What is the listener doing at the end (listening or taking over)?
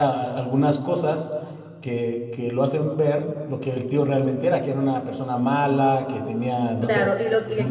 taking over